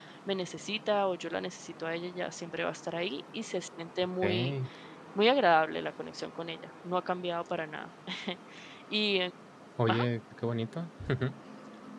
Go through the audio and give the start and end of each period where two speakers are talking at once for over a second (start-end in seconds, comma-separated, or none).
none